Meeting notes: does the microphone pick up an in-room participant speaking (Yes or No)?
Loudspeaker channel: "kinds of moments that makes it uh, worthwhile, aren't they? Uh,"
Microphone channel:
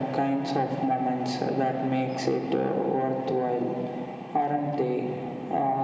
No